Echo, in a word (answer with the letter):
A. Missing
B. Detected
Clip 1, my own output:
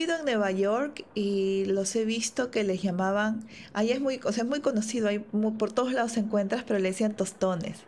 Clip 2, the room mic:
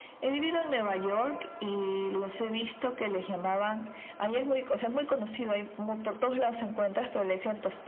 B